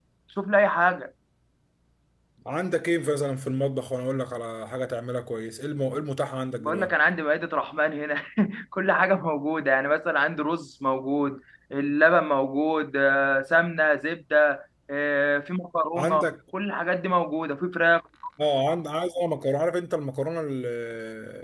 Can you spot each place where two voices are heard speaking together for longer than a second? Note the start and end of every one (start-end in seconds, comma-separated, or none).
none